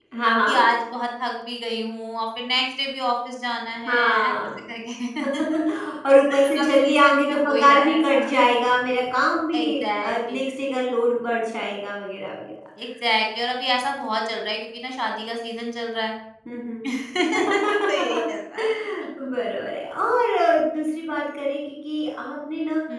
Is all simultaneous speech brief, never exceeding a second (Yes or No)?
No